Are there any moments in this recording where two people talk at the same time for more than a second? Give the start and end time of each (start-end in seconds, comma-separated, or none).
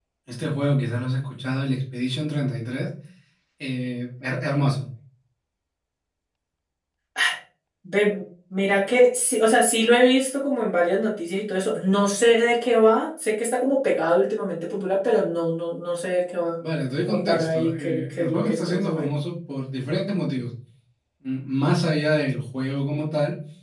17.1-19.1